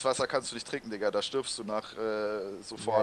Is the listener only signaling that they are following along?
No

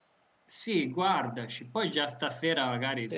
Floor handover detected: No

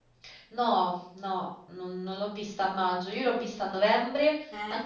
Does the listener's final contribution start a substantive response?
No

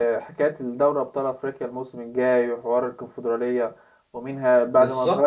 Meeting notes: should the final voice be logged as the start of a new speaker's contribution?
No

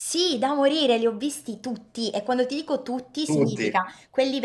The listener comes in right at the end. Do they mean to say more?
No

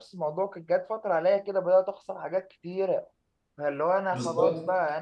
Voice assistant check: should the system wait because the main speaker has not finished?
Yes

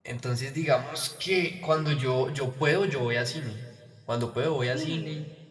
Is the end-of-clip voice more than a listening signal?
No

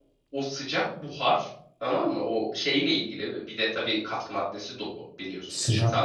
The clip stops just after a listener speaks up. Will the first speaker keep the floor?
No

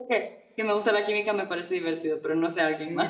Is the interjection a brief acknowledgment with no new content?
No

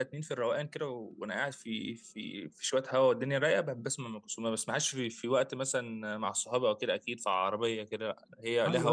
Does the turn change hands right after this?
Yes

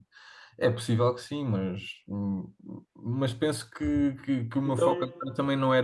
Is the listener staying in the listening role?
Yes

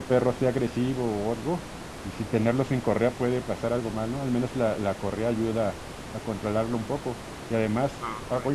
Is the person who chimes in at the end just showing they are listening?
No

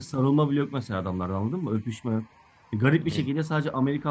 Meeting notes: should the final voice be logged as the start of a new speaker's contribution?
No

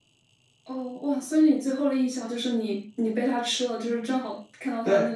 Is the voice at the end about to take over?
Yes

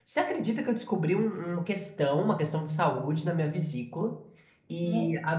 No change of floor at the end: Yes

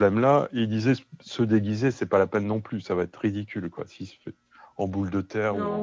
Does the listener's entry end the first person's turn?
Yes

